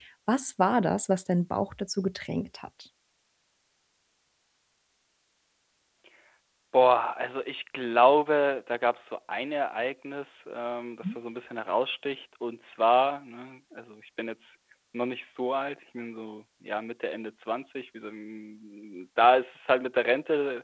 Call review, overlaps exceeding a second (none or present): none